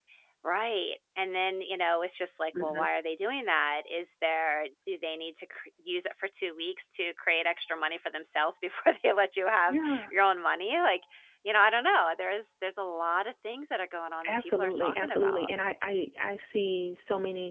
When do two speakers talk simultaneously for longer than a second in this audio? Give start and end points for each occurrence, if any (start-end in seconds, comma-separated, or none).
14.2-15.5